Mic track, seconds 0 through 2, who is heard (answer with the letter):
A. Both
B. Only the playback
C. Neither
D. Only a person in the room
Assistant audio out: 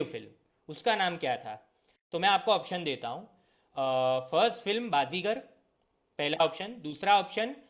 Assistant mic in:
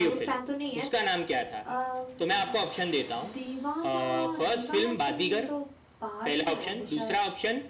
A